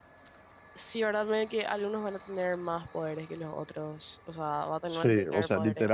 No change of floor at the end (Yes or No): No